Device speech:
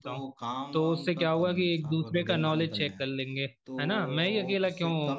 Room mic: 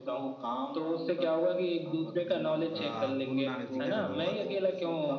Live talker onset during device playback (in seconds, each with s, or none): 2.7 s